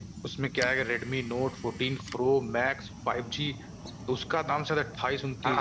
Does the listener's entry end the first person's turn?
No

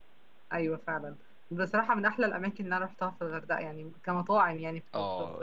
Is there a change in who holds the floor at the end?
Yes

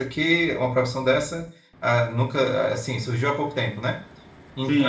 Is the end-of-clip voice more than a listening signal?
Yes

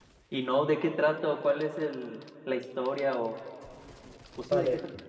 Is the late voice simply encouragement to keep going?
No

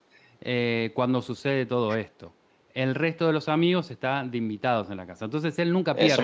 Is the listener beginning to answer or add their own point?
Yes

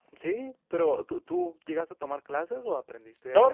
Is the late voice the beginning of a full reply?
Yes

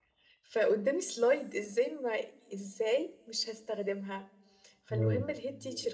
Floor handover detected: No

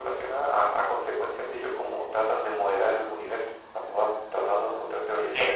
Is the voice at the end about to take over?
No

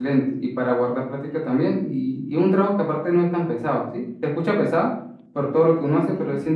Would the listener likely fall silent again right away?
Yes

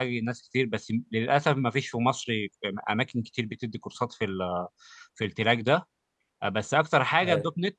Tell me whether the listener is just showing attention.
Yes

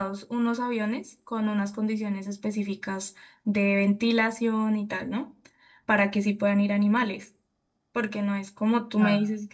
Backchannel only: Yes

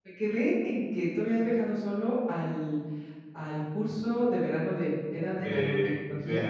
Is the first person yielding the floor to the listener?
Yes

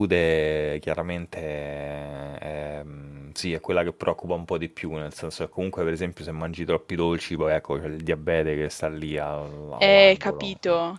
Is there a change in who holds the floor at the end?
Yes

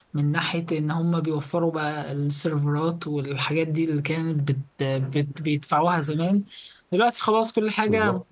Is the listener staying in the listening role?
Yes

